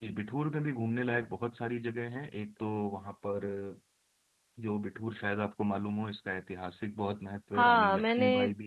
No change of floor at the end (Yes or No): No